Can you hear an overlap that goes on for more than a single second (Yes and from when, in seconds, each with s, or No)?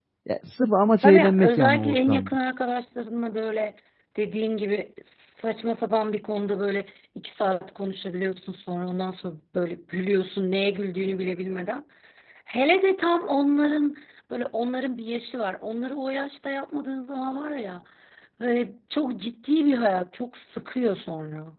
Yes, from 1.0 s